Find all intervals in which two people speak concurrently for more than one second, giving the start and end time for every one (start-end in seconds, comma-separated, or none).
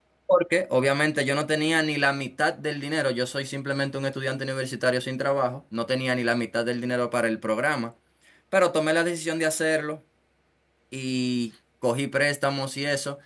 none